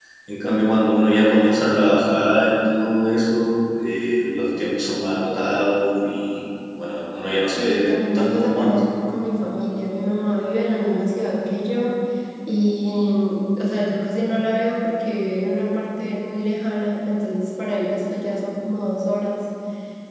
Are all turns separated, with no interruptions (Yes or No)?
No